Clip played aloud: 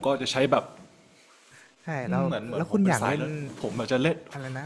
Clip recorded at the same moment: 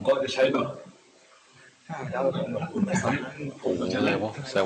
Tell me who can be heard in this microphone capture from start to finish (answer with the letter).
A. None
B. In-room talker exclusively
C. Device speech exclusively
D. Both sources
D